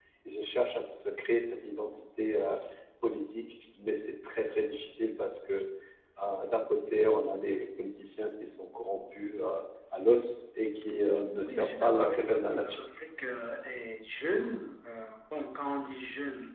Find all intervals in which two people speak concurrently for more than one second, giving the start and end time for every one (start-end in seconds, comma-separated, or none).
11.4-12.8